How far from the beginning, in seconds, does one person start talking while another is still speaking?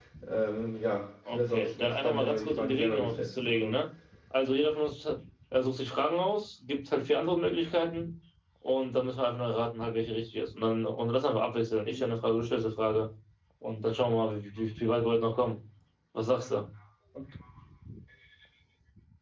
1 s

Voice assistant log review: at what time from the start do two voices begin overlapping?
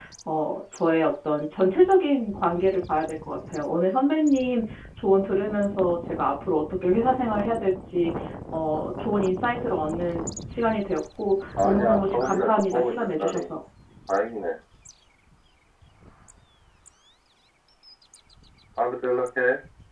12 s

